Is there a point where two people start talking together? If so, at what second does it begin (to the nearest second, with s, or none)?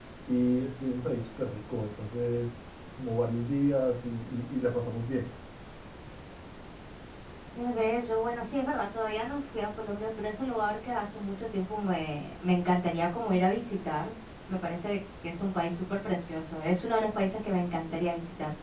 none